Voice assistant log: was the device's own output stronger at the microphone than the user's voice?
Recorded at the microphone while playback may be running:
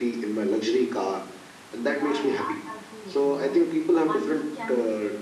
Yes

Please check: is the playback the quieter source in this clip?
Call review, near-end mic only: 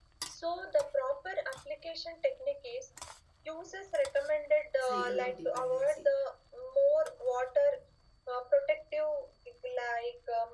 No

